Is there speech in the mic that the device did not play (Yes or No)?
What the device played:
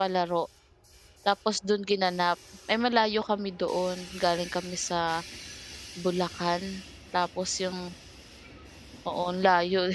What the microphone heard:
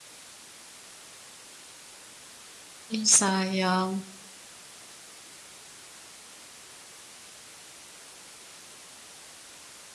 Yes